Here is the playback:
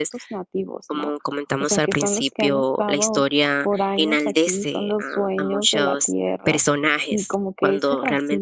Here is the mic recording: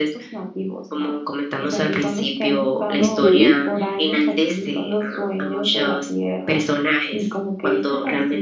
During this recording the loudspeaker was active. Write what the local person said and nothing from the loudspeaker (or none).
Ujú,